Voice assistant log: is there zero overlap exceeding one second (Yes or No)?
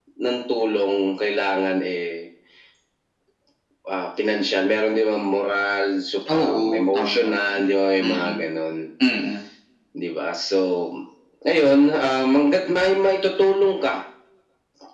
No